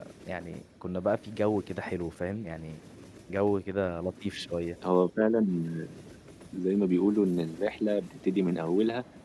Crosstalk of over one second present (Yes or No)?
No